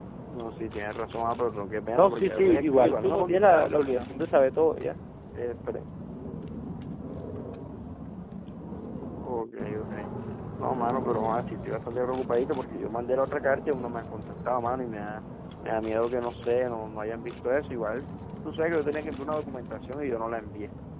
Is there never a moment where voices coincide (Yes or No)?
No